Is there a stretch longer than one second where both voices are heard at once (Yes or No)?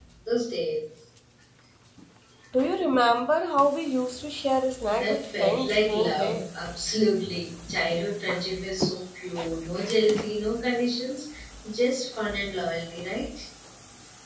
Yes